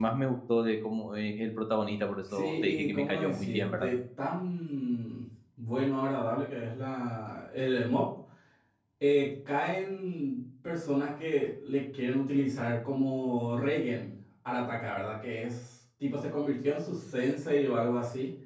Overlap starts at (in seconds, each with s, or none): 2.3 s